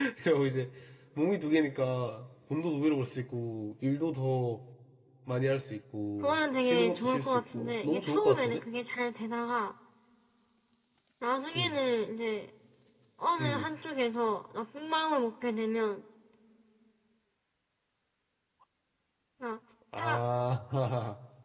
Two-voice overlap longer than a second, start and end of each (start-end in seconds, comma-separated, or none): 6.2-8.6